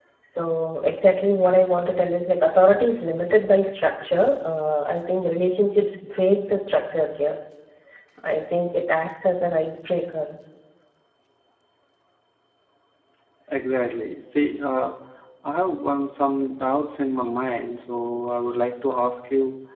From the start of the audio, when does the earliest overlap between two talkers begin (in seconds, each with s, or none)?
none